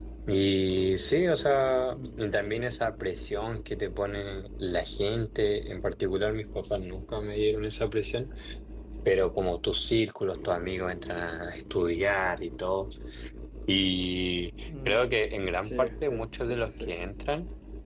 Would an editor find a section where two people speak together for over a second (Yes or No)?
Yes